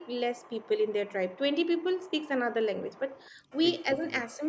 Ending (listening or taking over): listening